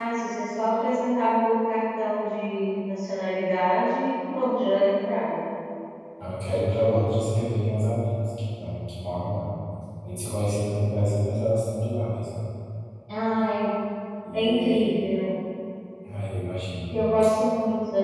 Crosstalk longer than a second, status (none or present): none